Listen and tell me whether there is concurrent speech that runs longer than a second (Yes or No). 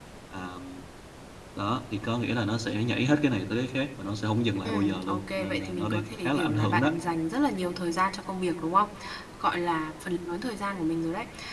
Yes